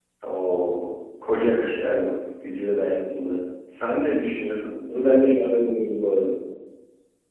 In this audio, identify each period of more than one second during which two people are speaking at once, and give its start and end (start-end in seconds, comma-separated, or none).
none